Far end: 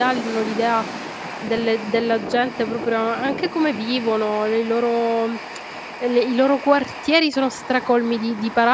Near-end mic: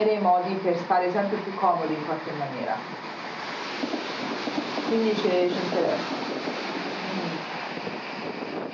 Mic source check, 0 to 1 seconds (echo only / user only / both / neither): user only